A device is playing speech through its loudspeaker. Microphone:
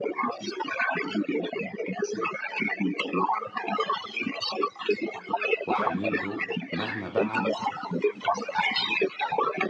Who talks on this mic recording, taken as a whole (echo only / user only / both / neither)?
both